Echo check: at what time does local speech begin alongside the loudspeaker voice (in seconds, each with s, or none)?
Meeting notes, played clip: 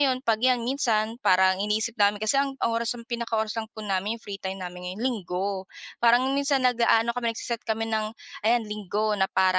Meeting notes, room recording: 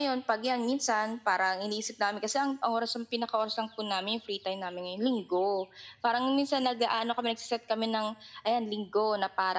none